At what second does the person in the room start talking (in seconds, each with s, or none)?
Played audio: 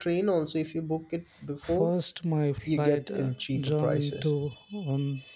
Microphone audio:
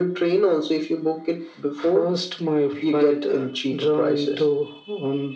none